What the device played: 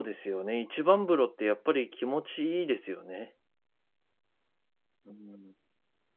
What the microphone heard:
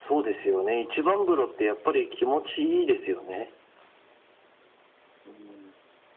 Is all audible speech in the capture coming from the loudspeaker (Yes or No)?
Yes